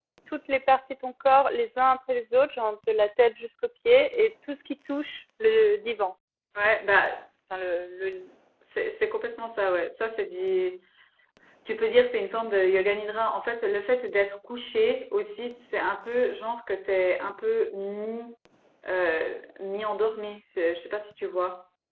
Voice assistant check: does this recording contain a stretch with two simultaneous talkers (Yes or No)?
No